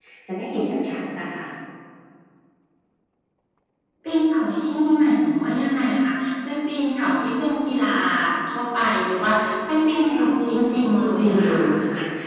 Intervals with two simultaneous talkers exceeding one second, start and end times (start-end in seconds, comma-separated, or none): 10.1-11.6